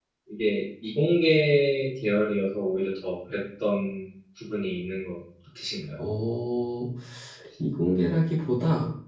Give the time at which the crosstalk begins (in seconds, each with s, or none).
none